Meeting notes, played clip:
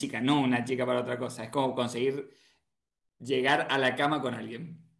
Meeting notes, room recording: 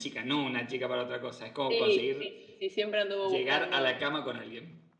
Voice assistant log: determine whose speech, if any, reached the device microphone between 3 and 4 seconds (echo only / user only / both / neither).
both